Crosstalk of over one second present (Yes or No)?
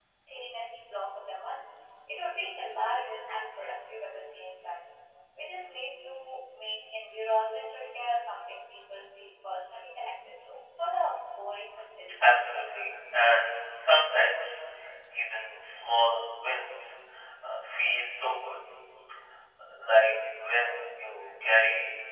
No